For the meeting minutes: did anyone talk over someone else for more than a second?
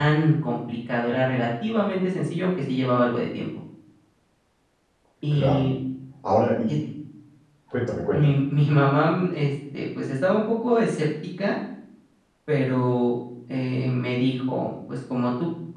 No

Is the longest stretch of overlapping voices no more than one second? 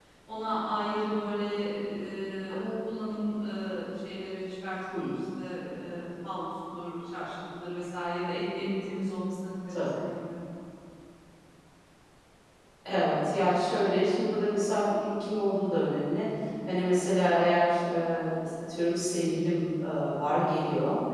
Yes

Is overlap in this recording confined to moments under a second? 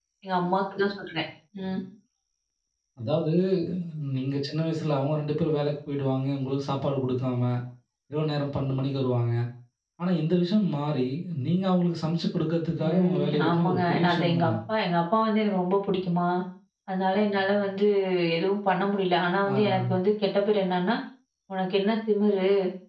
No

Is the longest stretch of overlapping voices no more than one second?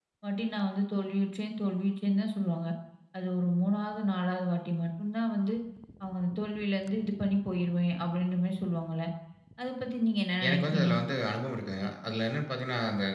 Yes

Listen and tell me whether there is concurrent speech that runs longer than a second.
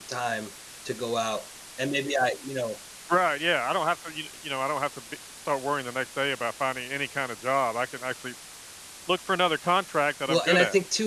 No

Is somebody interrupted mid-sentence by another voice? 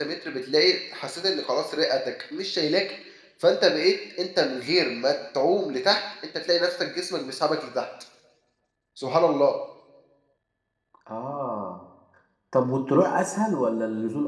No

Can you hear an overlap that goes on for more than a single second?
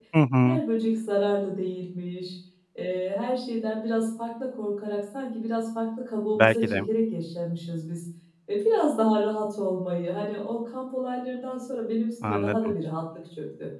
No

